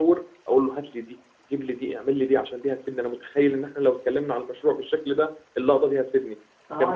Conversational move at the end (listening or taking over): taking over